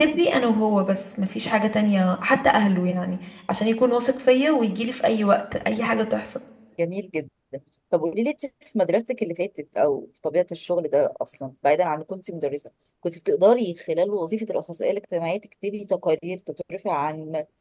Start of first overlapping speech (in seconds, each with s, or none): none